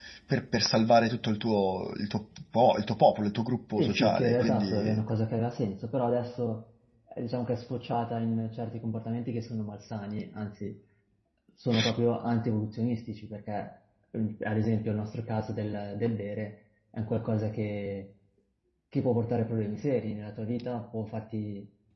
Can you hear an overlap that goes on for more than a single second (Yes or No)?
Yes